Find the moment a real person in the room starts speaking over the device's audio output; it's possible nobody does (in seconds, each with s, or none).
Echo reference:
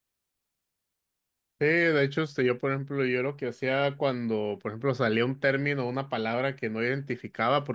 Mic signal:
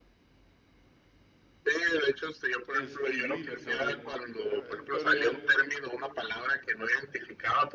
2.7 s